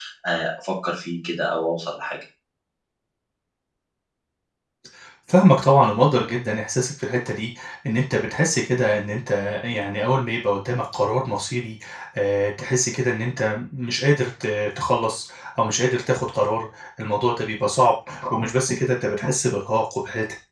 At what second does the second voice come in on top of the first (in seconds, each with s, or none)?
none